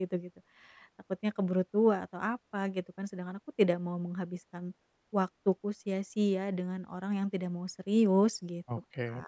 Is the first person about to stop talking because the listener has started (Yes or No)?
Yes